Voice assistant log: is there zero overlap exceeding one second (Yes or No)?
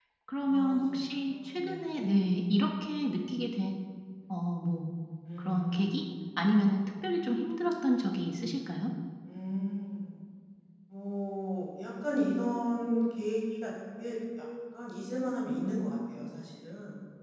No